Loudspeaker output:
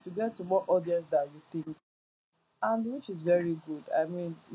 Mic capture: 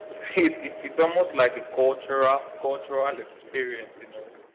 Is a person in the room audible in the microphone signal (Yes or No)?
Yes